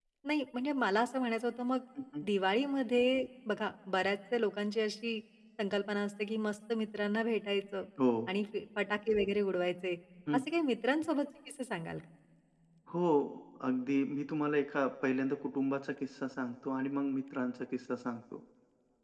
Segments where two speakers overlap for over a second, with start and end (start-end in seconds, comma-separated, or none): none